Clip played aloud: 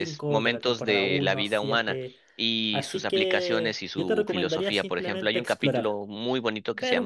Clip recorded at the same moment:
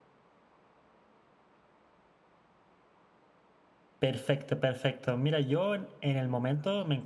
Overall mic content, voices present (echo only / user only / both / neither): user only